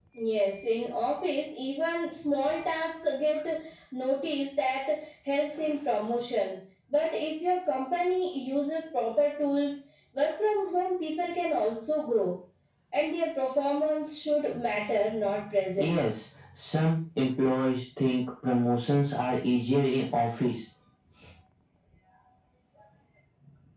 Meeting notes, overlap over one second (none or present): none